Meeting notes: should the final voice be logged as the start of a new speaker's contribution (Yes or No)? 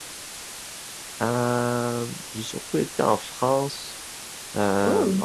No